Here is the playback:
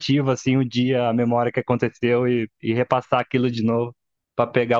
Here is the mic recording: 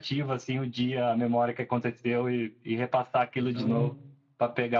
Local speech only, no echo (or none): Então,